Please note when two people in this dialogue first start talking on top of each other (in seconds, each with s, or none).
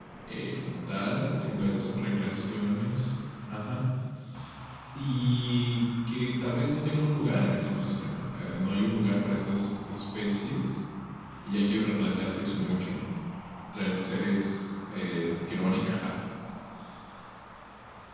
1.1 s